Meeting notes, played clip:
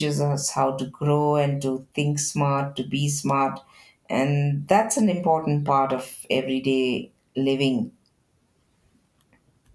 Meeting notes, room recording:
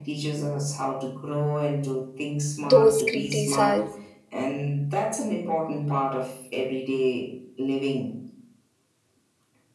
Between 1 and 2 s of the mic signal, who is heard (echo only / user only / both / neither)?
echo only